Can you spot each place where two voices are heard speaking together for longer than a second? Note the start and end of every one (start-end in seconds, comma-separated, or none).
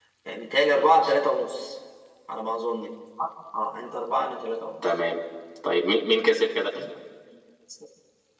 none